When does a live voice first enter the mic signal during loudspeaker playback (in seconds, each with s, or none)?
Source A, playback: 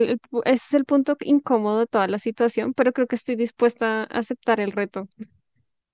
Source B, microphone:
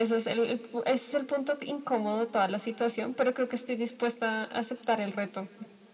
none